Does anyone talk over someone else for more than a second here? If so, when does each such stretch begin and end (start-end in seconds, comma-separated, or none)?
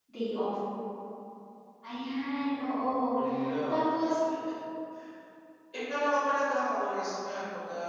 none